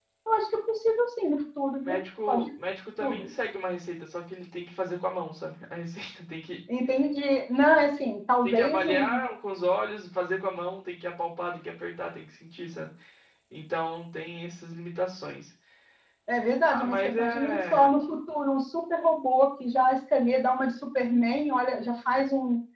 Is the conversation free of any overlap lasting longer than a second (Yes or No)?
No